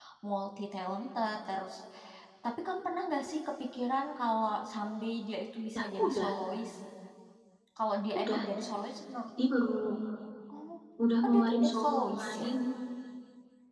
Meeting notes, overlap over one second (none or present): present